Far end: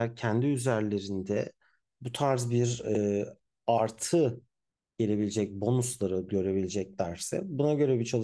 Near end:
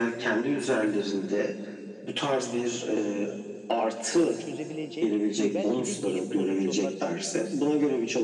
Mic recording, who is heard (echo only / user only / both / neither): both